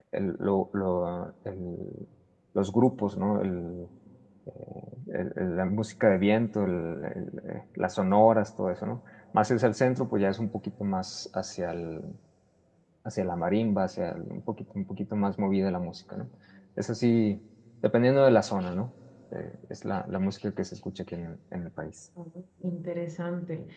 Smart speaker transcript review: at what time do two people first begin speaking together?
none

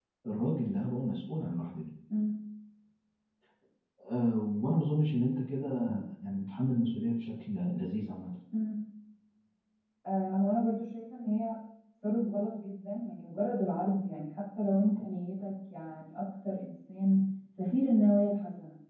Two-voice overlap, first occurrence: none

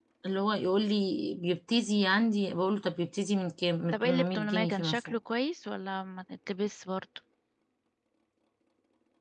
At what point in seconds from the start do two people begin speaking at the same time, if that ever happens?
3.9 s

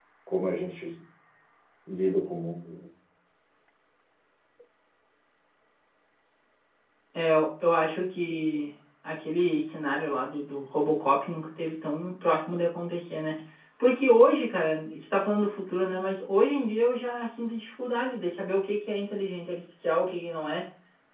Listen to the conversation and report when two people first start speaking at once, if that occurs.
none

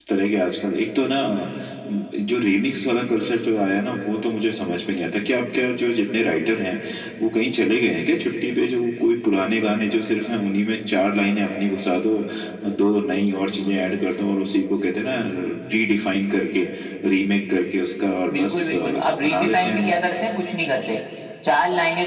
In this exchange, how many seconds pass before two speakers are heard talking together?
18.3 s

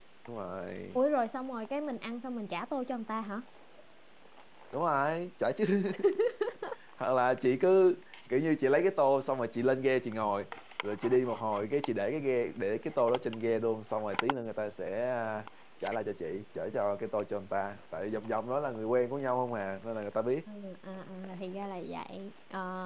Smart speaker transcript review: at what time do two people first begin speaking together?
none

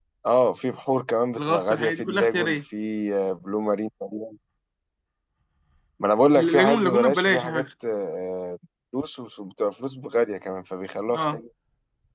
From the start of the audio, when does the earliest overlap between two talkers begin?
1.4 s

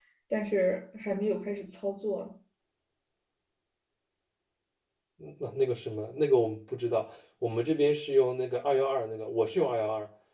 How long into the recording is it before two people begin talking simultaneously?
none

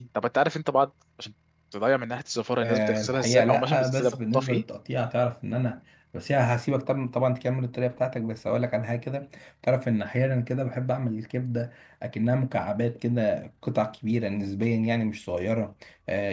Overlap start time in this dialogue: 2.6 s

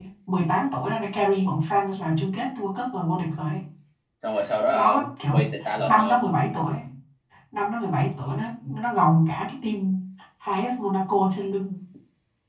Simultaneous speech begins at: 4.7 s

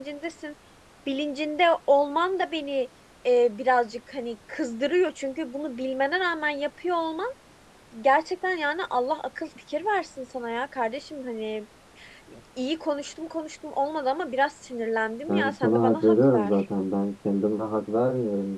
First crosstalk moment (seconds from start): 15.3 s

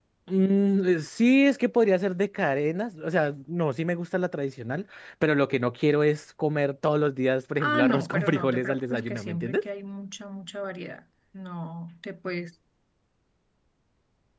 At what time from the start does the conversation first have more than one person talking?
7.6 s

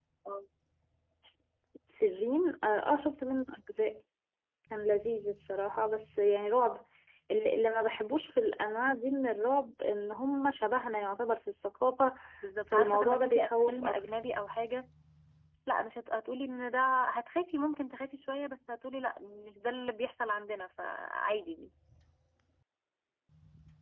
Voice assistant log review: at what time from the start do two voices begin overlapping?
12.7 s

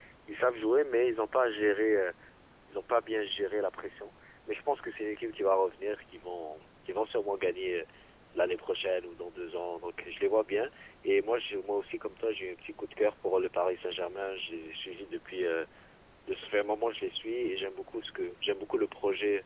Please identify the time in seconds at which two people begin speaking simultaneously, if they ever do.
none

